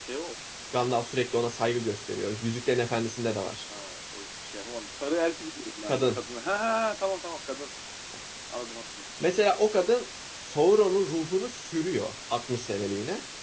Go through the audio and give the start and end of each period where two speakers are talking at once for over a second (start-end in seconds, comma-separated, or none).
none